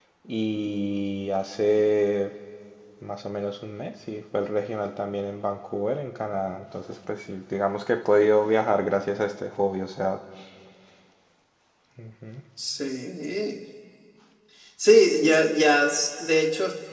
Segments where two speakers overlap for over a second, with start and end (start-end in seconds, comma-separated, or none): none